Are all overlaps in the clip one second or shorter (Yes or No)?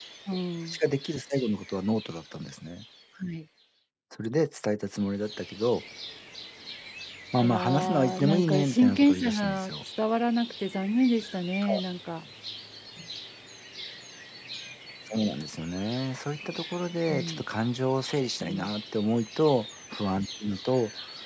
No